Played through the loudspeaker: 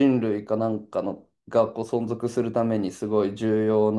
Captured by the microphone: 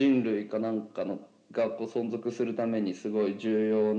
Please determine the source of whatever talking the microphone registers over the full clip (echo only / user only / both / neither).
echo only